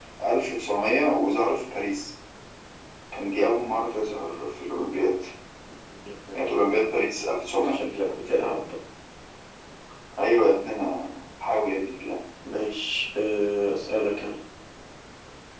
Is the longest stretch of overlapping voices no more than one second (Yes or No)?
Yes